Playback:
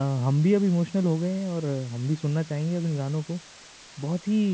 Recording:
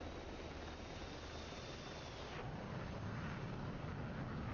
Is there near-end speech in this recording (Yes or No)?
No